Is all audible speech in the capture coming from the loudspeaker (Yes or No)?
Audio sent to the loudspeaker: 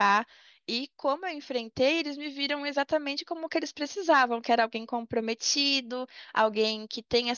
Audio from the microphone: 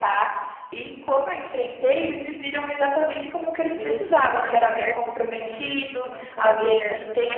No